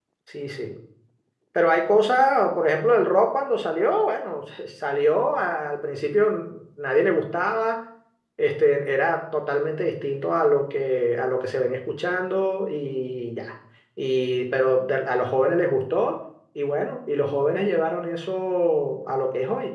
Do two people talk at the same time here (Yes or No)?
No